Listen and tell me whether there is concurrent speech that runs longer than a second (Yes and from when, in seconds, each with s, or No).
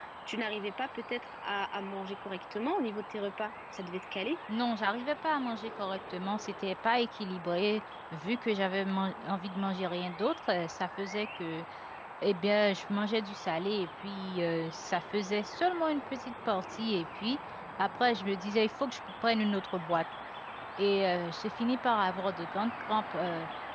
No